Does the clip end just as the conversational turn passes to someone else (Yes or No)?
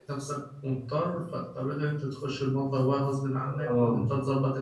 Yes